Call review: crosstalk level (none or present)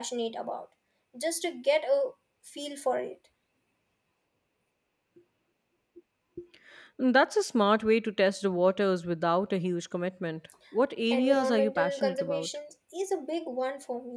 present